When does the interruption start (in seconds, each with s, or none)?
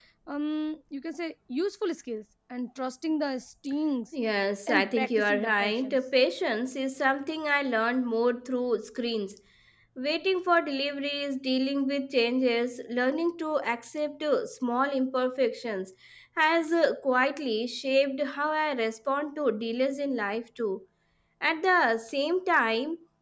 4.7 s